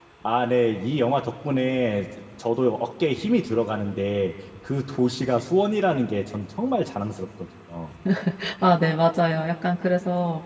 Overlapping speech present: No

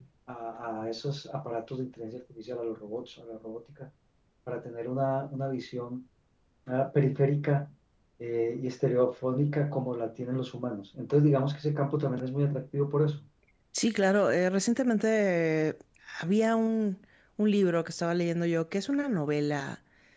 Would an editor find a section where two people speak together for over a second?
No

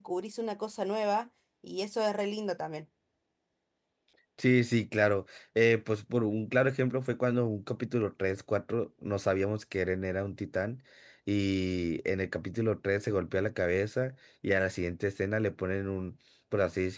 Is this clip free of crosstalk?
Yes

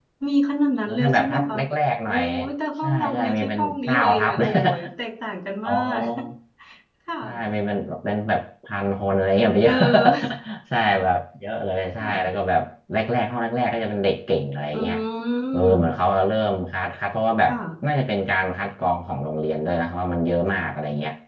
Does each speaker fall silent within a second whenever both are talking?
No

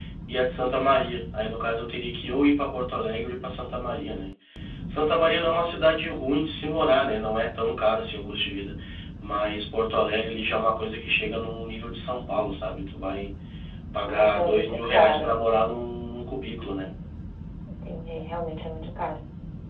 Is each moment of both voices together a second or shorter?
No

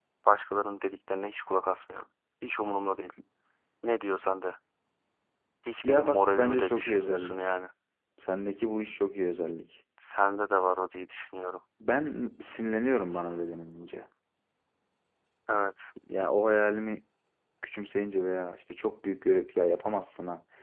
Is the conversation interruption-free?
No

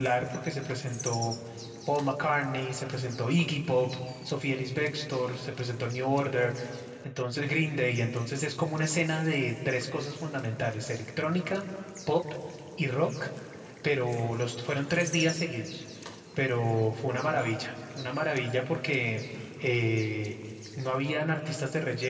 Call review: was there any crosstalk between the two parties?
No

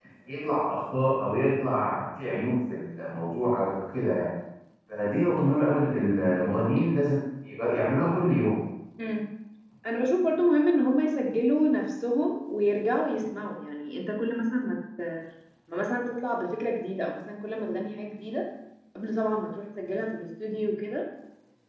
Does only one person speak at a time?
Yes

